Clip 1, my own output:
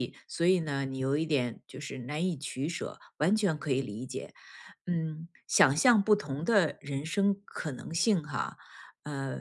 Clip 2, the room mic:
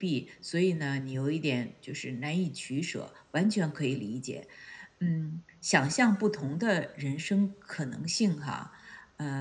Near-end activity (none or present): none